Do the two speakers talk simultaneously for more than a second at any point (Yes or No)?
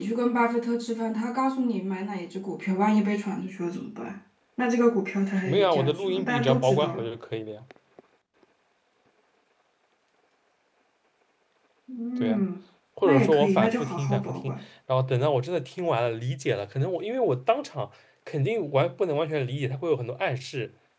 Yes